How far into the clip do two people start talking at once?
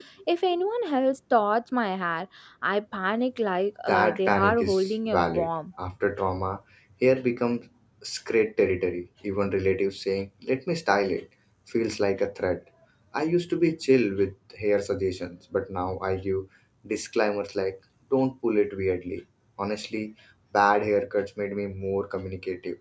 3.9 s

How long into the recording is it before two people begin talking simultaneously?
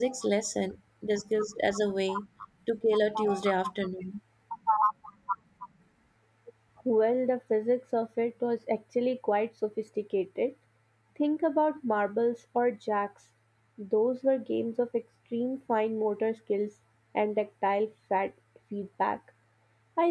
none

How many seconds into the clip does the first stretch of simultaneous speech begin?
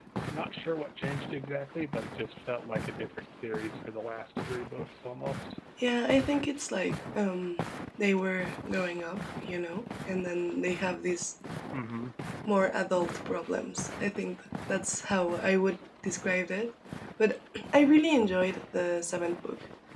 none

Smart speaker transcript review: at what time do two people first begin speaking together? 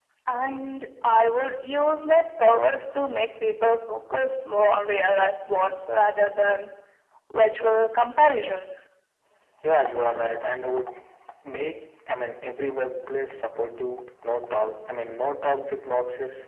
none

